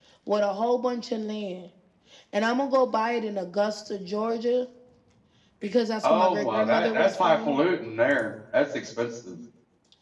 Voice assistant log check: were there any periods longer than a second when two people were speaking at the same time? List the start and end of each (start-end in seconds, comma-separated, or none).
6.0-7.6